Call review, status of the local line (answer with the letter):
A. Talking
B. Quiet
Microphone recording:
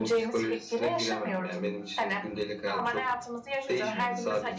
B